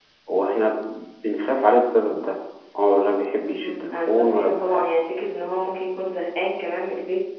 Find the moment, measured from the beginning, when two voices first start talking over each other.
3 s

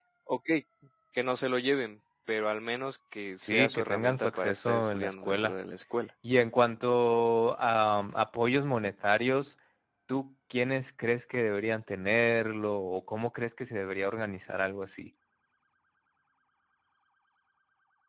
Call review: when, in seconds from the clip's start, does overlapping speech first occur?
3 s

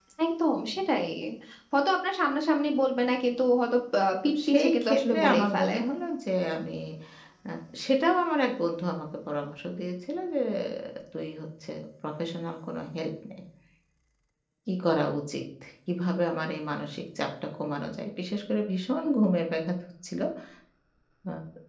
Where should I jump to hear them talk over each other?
4 s

